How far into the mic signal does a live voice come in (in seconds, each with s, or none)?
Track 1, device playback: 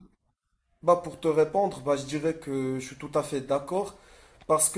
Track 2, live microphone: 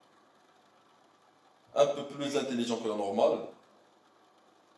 1.7 s